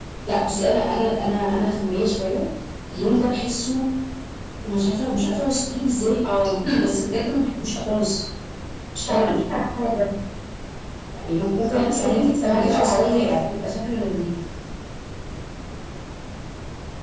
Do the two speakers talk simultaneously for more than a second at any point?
Yes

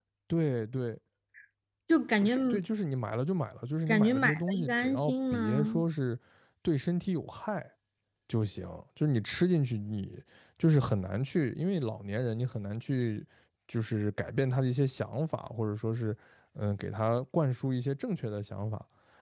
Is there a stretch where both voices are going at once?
Yes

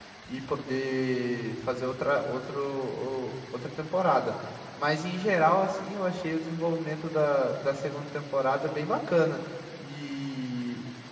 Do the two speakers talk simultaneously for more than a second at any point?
No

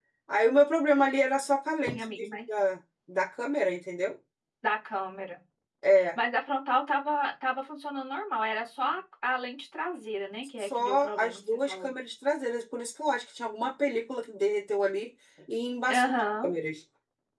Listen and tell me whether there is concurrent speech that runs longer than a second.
Yes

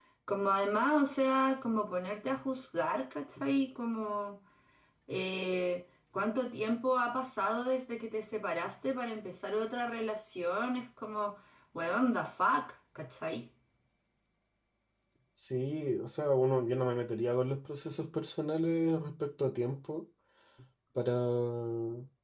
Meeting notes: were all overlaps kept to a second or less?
Yes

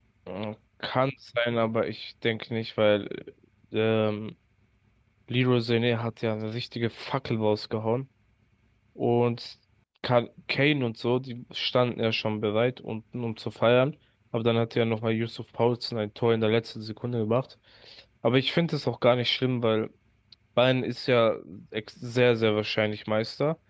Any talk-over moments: No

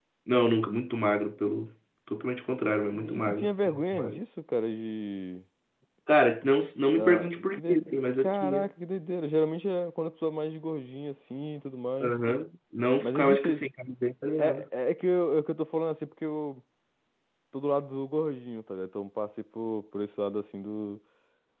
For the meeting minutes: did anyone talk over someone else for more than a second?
Yes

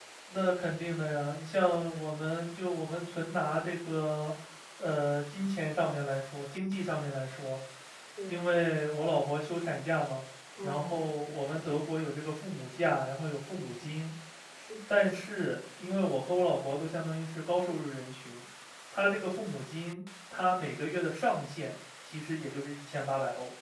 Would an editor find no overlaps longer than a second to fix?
Yes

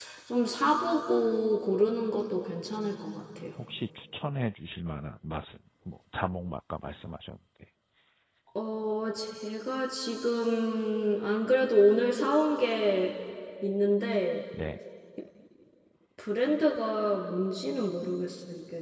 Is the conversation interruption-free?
Yes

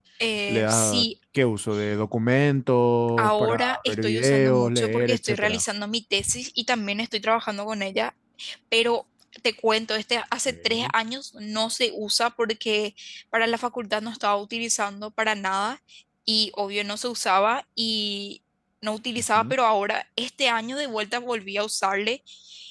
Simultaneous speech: Yes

